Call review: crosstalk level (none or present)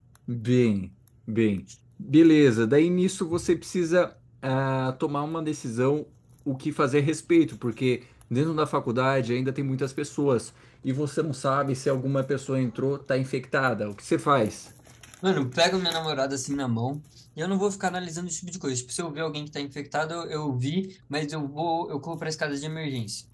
none